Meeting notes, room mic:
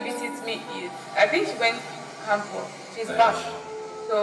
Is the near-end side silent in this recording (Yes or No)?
No